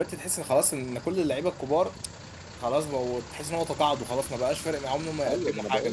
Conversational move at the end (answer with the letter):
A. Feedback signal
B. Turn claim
B